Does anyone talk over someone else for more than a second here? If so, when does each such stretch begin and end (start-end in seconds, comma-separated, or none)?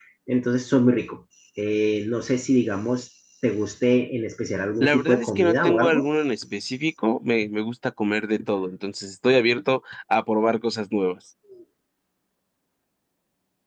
4.8-6.1